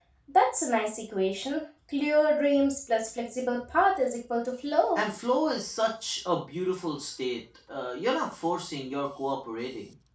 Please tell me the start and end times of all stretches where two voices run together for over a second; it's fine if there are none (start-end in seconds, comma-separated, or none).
none